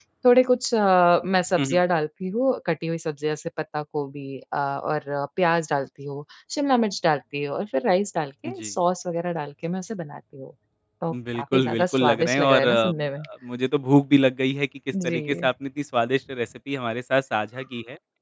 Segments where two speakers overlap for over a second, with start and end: 11.1-12.9

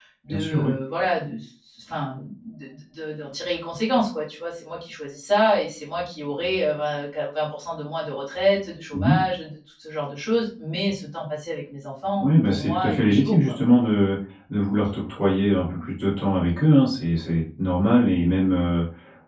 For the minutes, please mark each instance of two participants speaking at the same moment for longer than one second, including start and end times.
12.2-13.6

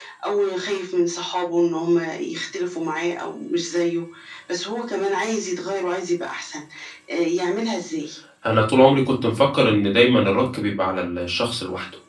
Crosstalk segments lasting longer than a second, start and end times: none

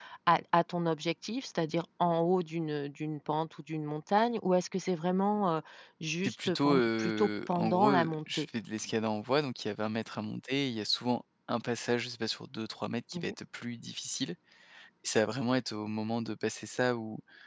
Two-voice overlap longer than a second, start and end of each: 6.2-8.5

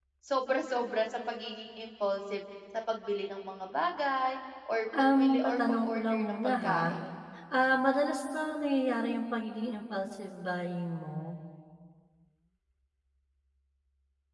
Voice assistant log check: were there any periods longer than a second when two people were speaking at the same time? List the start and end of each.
5.0-7.0

